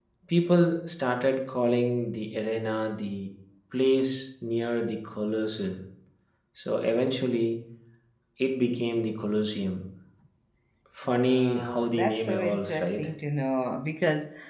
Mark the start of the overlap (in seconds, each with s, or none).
11.1 s